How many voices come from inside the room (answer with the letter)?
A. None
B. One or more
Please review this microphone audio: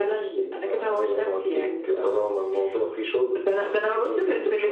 A